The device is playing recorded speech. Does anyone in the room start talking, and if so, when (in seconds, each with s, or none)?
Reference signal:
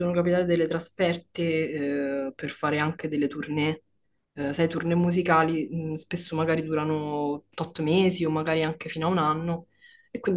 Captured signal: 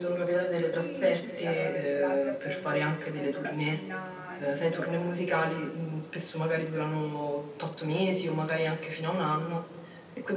0.6 s